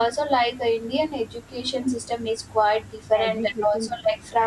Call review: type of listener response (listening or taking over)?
listening